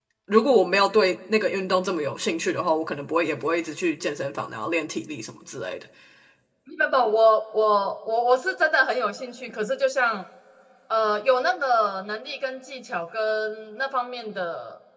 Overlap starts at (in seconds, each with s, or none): none